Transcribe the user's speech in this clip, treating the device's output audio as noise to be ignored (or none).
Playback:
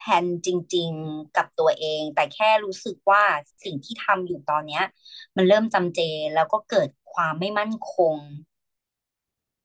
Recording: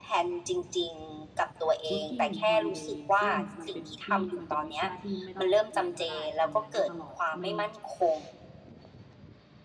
working and holiday ซึ่งมันเป็นที่มันเป็นวีซ่าที่ไม่ต้องเรียนก็ได้ ทำงานได้ตลอด ไม่